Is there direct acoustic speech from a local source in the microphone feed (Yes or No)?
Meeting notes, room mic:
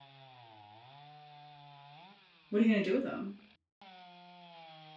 Yes